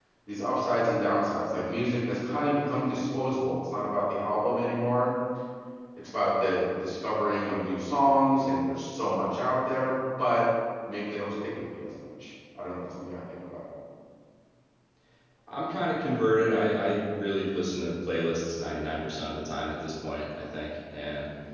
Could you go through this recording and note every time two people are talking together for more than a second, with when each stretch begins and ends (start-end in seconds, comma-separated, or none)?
none